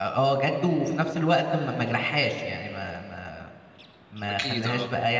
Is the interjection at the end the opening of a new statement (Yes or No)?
No